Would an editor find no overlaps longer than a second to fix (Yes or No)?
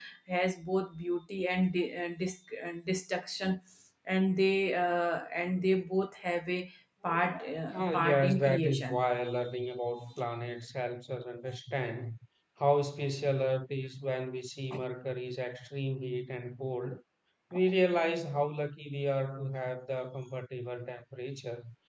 No